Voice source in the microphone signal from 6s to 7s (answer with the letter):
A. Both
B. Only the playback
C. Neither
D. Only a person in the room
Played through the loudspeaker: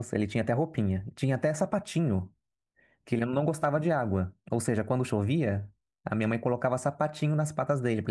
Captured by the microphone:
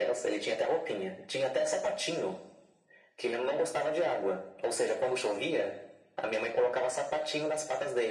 B